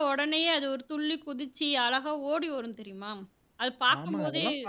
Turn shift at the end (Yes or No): Yes